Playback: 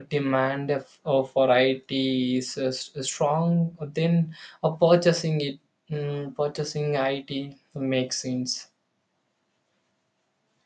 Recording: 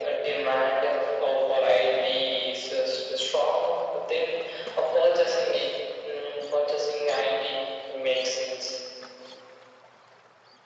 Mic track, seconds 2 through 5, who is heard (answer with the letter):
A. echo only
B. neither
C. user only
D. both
A